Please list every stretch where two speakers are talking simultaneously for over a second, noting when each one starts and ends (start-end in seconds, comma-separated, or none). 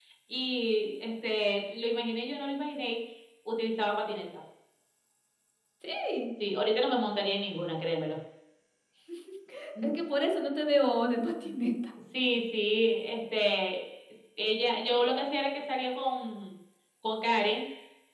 none